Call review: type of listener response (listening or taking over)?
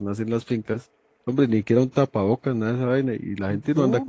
listening